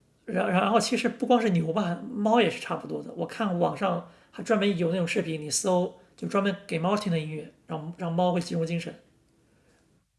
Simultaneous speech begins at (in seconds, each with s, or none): none